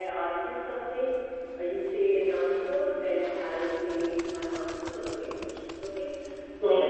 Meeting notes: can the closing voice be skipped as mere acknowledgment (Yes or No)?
Yes